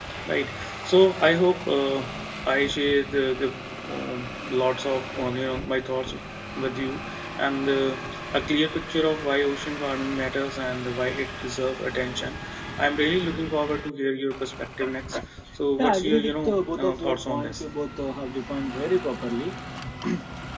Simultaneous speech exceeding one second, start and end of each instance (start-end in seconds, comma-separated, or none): 15.8-17.6